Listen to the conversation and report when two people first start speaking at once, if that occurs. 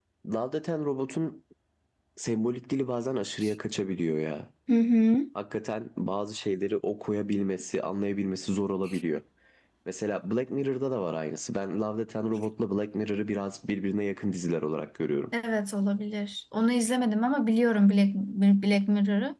none

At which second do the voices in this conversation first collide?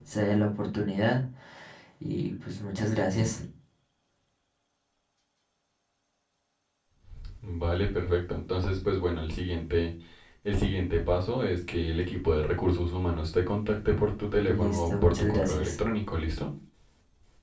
14.4 s

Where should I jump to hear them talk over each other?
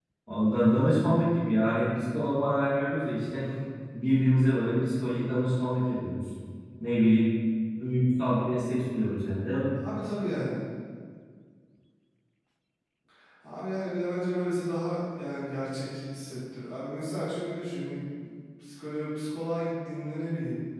none

